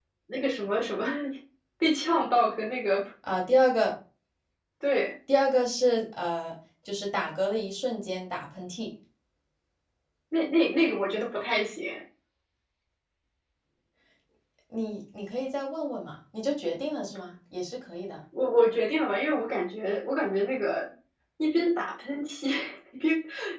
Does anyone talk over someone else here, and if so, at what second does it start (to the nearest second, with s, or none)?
none